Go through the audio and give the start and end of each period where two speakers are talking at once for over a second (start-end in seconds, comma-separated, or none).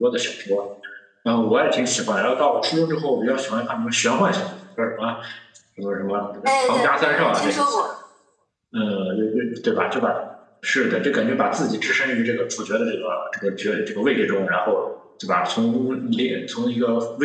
6.4-7.8